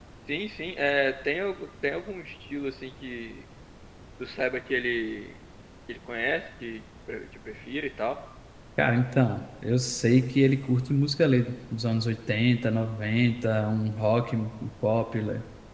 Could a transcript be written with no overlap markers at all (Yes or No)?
Yes